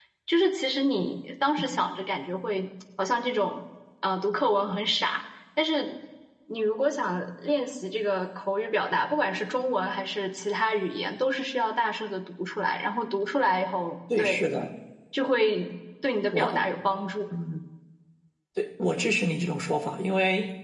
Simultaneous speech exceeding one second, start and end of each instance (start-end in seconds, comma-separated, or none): none